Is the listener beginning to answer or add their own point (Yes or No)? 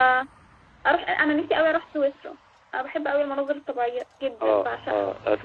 Yes